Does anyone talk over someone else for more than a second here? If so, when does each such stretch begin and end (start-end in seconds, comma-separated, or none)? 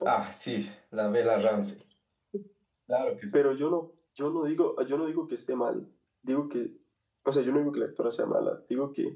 none